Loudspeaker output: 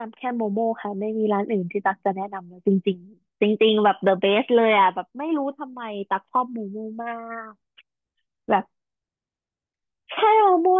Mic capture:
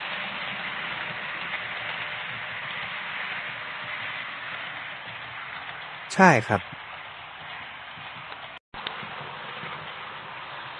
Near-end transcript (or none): ใช่ครับ